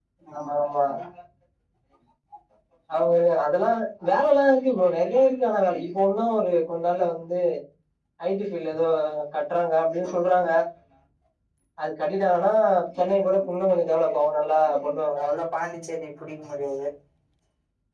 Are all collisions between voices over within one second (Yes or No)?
Yes